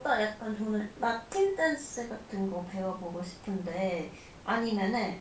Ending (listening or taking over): listening